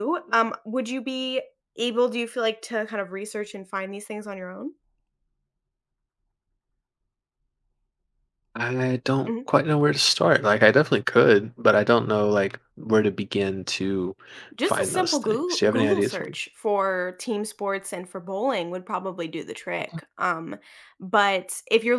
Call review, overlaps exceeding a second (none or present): present